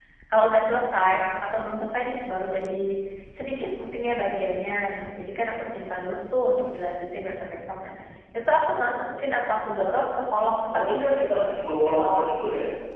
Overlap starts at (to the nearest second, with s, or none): 11 s